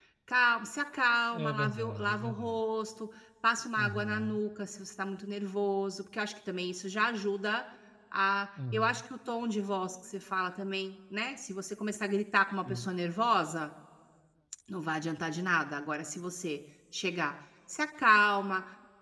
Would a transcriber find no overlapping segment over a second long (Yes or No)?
No